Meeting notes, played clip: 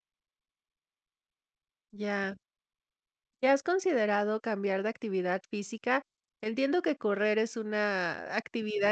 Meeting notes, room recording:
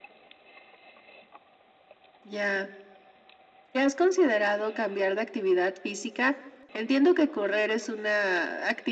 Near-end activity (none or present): none